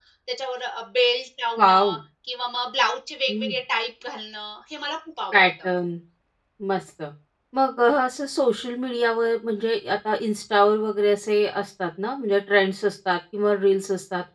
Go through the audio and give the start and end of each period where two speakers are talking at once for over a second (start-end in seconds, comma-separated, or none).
none